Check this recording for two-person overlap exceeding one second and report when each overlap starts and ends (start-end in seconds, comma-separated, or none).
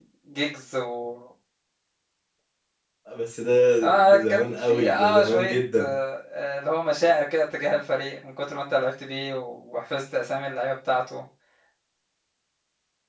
4.0-6.0